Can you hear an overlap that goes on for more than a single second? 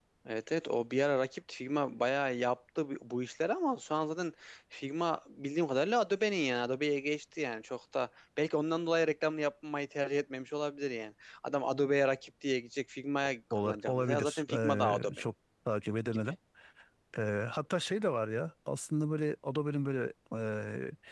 Yes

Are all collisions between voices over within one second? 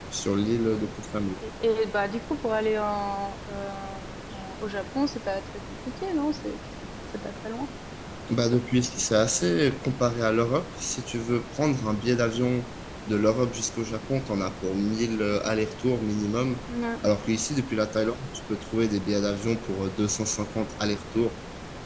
Yes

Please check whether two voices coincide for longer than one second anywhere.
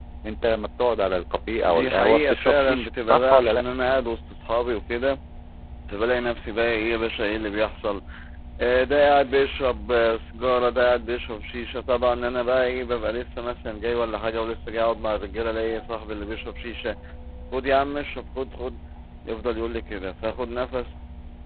Yes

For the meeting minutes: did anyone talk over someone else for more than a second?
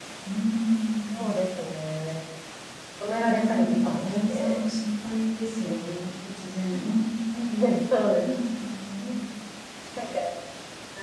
Yes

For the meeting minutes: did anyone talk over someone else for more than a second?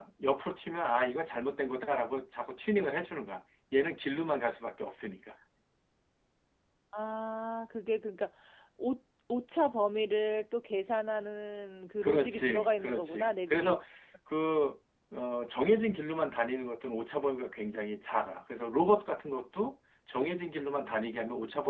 Yes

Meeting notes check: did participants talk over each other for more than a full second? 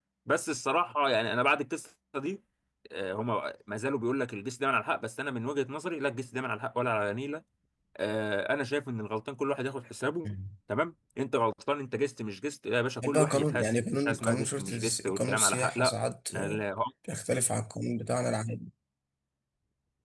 Yes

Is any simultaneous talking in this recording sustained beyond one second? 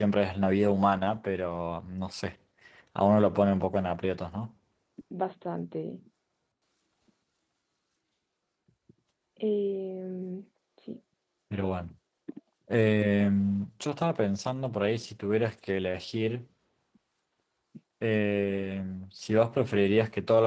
No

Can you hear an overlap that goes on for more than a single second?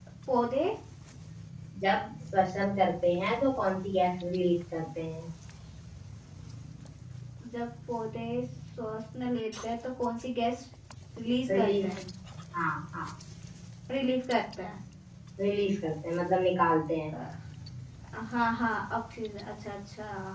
No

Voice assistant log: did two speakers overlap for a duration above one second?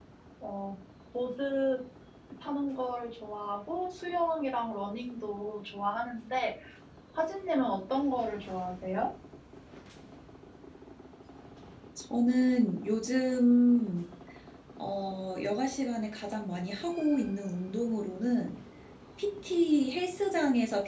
No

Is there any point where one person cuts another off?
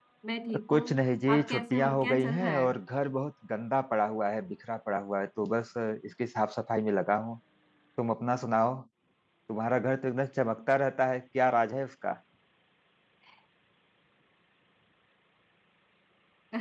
Yes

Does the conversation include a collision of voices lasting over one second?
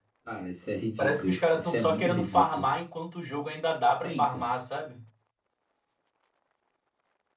Yes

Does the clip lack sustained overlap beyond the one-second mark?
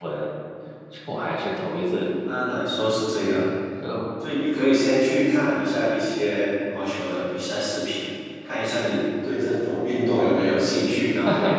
Yes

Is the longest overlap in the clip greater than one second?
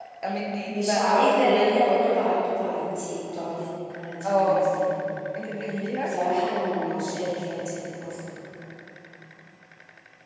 Yes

